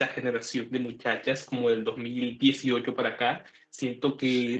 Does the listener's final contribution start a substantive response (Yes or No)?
No